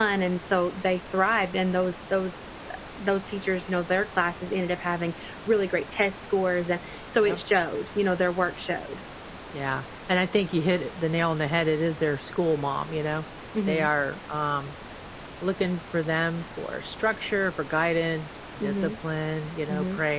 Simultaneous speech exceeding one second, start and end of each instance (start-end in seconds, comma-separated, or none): none